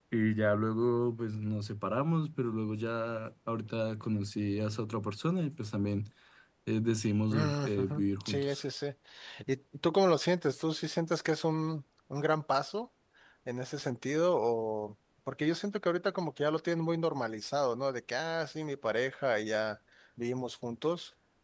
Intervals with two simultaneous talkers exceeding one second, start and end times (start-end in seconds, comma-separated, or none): 7.3-8.6